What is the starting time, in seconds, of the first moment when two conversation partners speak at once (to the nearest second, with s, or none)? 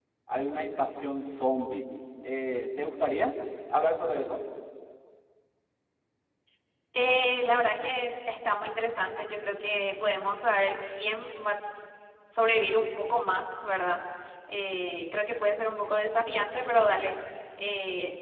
none